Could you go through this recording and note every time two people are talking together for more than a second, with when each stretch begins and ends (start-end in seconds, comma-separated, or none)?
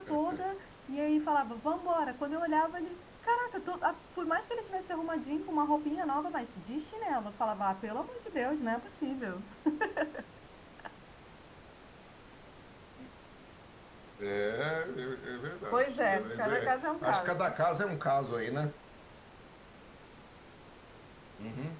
15.7-17.5